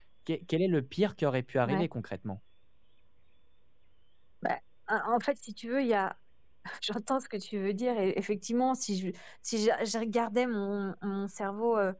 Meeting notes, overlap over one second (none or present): none